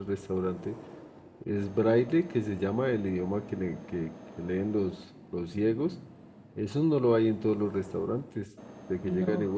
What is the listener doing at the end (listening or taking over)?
listening